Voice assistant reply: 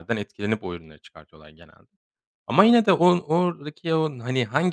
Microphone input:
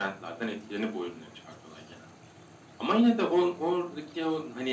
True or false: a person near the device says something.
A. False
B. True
A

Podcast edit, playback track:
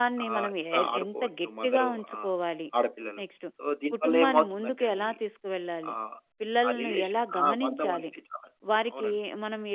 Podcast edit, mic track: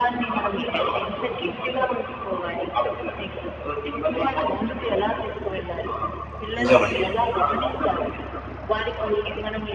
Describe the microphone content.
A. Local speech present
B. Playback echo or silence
A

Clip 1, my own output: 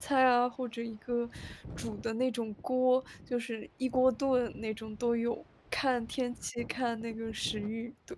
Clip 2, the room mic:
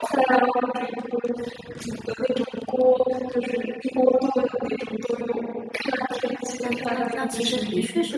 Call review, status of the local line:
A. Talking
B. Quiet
A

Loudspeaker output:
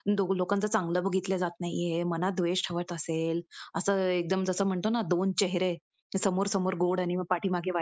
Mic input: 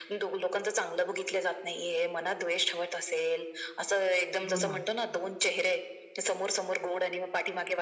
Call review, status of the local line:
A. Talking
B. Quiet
A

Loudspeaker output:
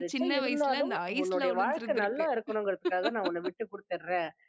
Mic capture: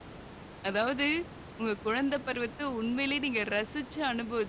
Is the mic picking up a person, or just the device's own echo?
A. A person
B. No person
A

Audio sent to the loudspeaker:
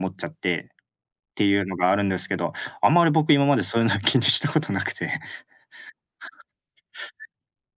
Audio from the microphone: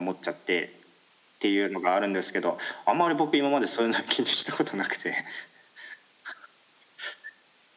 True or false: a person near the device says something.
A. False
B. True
A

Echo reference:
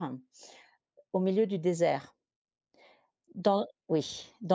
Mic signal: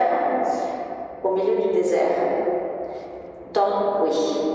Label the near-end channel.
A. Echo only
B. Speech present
A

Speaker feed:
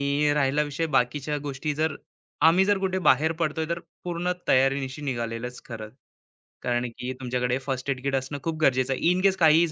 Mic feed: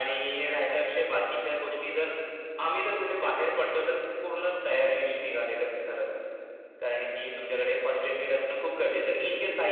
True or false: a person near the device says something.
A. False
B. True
A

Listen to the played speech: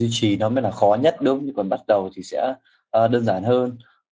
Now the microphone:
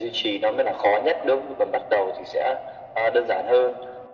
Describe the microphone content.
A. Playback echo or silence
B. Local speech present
A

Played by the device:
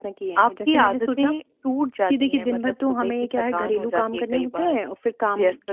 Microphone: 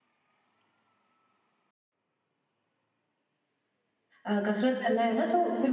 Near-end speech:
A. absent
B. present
B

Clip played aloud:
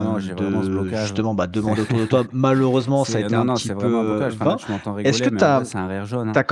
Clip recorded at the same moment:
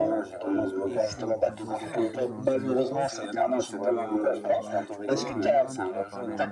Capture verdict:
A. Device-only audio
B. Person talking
B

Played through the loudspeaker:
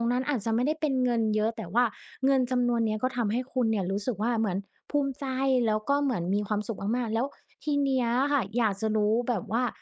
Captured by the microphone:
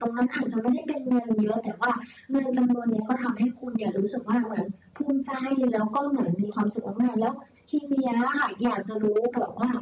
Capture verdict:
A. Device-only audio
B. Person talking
A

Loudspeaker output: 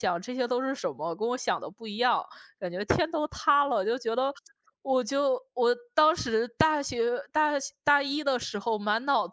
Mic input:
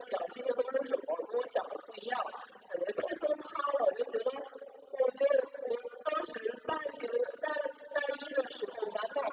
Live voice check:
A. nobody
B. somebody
A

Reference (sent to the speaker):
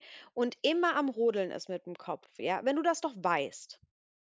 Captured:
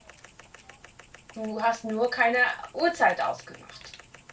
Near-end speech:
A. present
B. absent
A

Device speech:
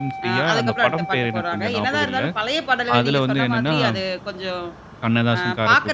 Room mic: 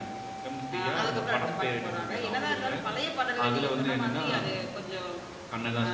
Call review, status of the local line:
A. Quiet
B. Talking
A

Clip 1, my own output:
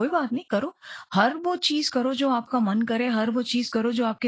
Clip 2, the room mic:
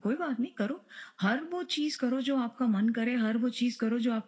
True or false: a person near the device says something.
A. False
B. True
A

